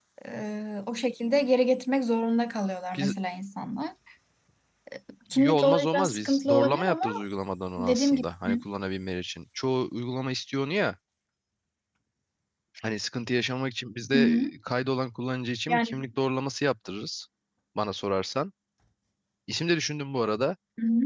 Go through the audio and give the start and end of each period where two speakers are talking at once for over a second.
5.4-7.0

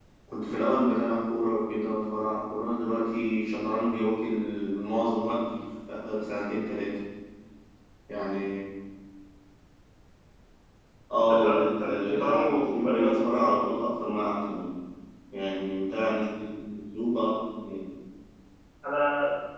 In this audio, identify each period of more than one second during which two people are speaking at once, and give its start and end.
11.2-13.3

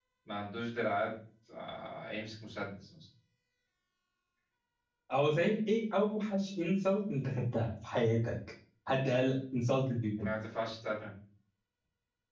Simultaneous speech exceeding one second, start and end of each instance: none

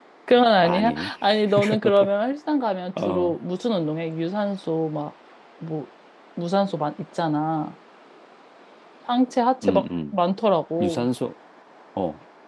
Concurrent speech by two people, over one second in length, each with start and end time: none

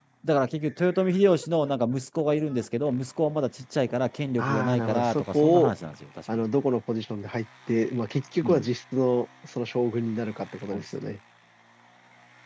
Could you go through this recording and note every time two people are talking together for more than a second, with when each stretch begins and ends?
4.4-5.7

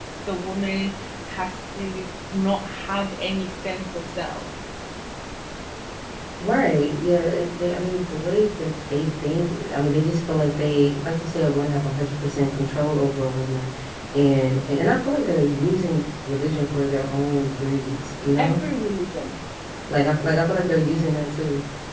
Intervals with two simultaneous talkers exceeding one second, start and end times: none

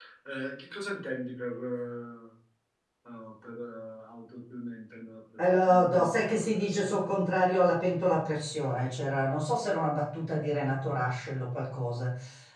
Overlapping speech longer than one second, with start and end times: 5.6-7.1

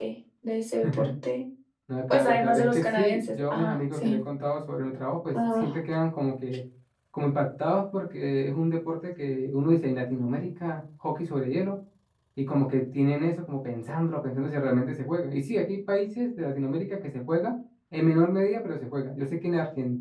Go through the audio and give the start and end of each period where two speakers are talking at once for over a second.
2.1-4.2

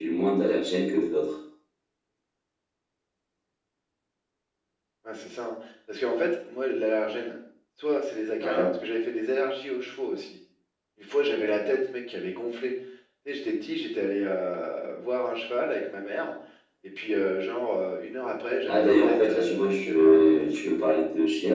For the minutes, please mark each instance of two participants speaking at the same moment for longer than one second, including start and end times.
18.6-20.7

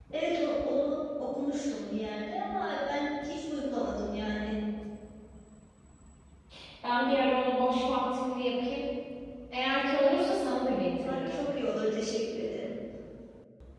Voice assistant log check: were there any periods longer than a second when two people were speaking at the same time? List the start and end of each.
none

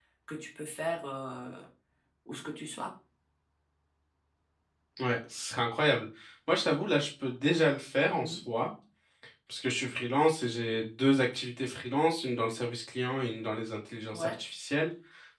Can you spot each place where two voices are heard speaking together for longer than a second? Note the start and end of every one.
none

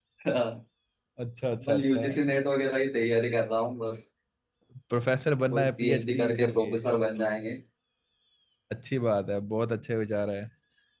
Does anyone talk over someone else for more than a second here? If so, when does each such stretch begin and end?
5.5-6.8

